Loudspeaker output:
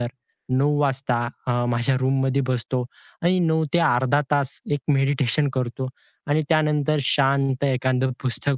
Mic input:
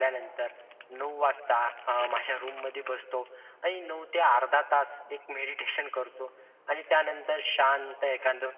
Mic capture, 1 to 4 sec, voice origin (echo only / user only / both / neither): echo only